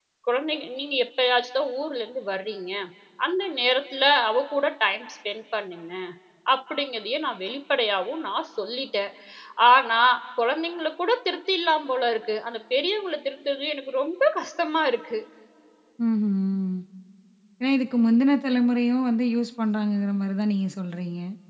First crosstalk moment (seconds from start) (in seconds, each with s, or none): none